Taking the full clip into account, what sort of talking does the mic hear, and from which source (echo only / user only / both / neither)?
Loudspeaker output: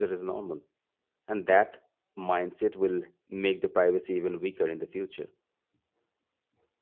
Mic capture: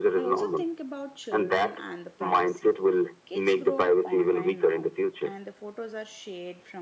both